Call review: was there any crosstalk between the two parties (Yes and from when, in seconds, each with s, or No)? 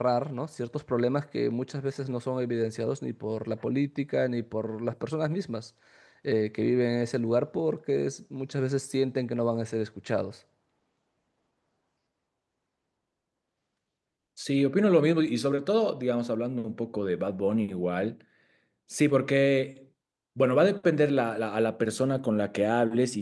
No